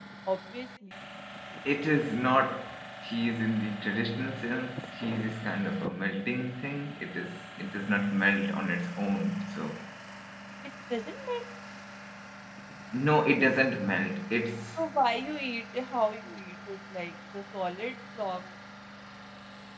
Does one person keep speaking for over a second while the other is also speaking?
No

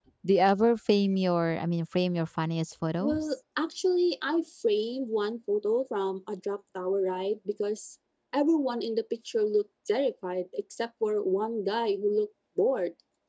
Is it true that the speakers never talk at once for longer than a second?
Yes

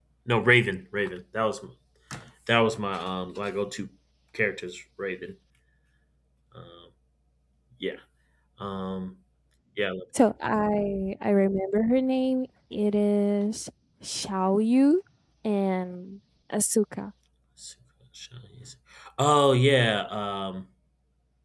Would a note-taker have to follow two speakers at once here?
No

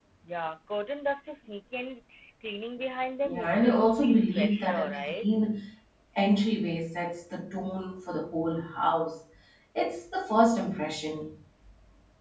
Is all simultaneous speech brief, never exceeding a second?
No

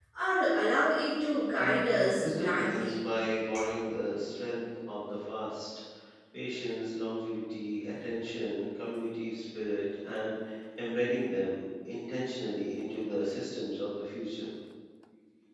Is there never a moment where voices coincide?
No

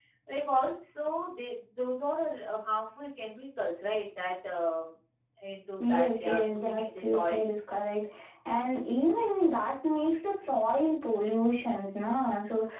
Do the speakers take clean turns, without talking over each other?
No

